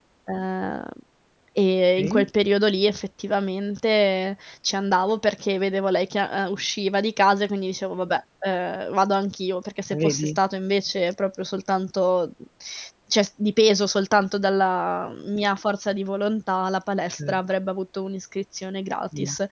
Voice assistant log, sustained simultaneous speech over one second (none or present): none